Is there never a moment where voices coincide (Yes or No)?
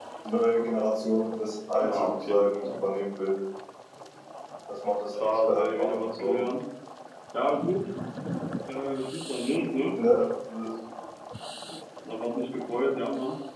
No